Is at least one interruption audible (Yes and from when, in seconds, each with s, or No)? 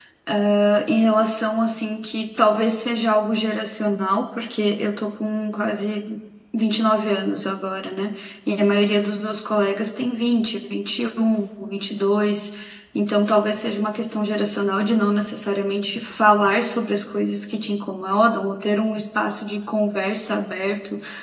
No